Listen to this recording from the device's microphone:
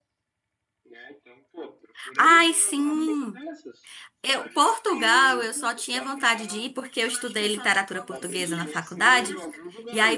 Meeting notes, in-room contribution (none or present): present